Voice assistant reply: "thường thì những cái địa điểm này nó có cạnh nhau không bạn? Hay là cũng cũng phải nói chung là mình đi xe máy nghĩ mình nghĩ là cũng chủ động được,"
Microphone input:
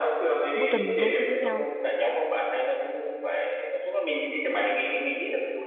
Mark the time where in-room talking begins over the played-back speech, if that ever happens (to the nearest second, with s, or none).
1 s